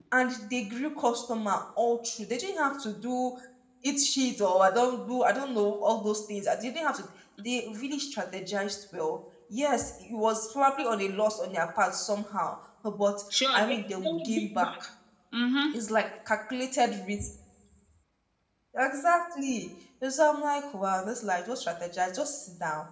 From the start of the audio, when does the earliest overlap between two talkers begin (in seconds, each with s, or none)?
13.5 s